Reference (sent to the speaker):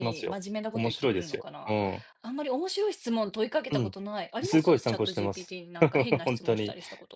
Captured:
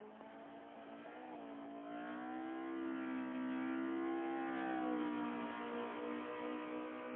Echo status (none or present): none